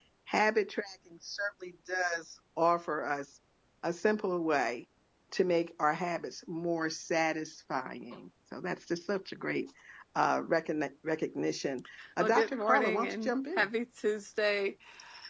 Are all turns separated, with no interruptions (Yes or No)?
No